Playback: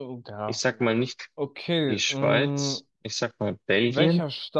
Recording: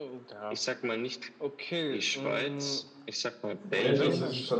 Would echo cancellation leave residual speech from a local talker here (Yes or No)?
Yes